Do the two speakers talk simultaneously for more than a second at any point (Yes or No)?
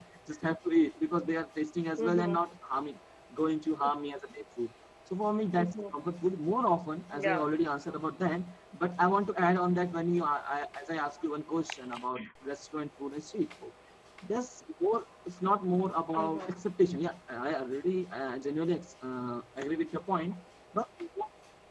No